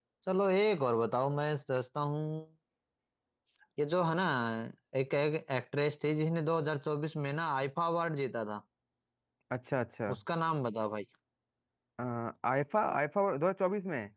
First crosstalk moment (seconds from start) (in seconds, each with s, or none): none